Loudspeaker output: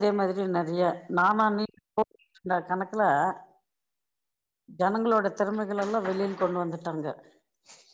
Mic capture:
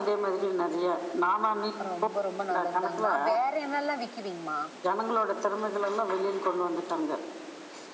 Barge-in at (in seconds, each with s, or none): 1.9 s